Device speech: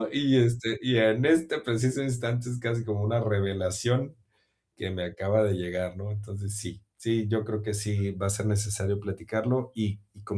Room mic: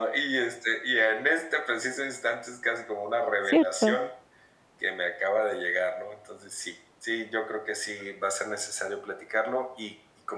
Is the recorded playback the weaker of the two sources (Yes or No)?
Yes